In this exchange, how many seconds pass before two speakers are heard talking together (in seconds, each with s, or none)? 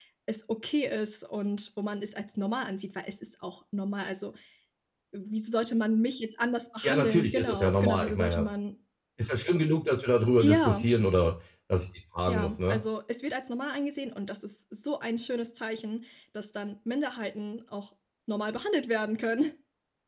6.8 s